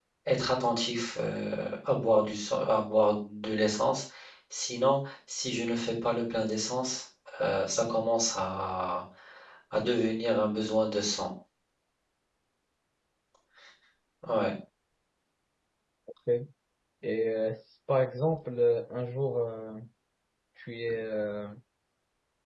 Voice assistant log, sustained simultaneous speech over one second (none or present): none